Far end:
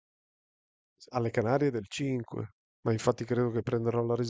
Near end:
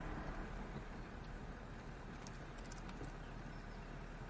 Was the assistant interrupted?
No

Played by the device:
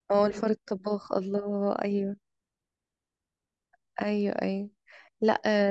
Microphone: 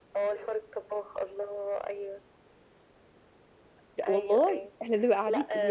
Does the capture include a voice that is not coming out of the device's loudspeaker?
Yes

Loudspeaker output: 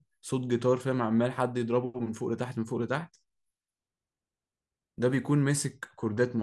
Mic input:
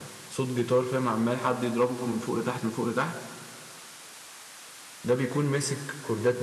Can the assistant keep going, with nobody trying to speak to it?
Yes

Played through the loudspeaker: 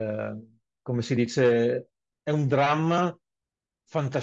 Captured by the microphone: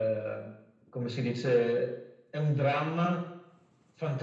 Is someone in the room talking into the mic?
No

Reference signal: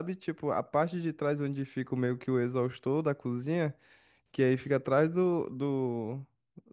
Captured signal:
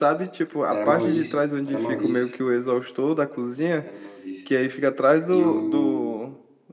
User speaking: Yes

